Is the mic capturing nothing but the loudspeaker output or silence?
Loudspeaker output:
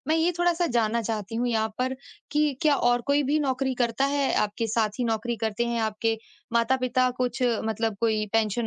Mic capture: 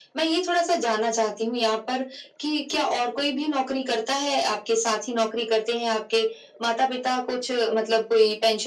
Yes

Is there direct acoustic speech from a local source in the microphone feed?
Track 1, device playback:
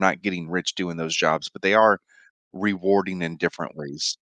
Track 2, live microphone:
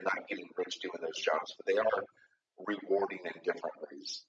No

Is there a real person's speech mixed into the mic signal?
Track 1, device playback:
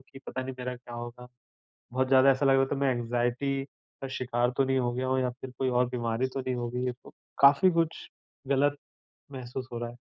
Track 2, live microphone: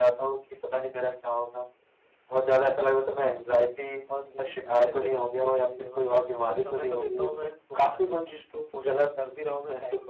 Yes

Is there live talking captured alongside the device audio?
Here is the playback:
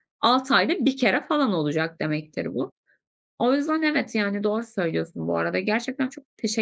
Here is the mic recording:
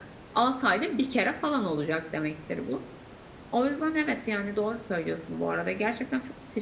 No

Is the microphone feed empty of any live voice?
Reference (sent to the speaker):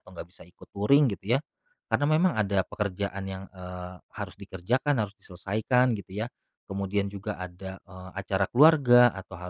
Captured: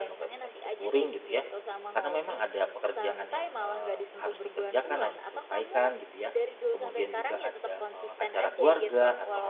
No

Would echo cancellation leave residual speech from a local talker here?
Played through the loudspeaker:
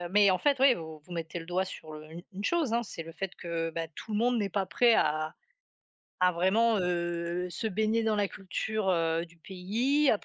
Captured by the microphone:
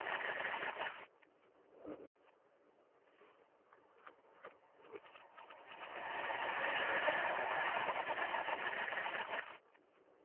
No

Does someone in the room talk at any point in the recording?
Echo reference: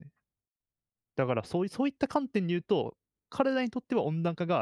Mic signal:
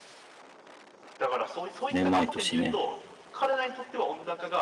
Yes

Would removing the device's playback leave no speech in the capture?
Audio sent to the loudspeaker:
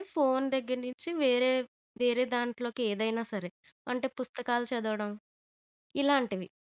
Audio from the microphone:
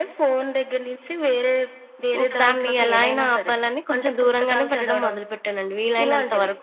No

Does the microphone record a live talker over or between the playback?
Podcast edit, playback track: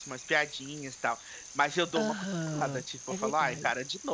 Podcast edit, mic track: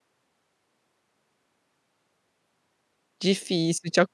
Yes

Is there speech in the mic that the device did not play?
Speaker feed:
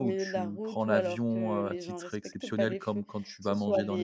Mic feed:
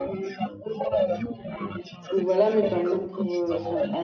Yes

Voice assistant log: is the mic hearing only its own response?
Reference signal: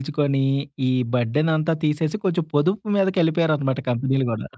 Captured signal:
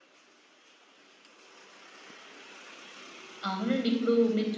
No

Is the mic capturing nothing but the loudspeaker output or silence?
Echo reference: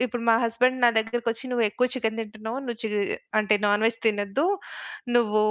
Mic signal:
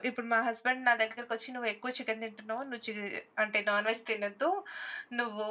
Yes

